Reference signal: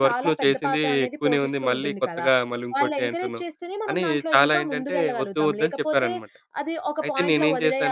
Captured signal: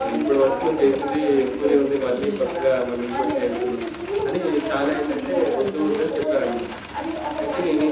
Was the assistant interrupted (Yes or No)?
No